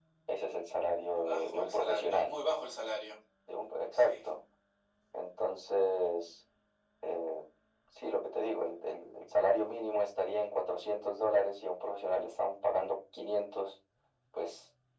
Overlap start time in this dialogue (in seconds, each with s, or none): 1.0 s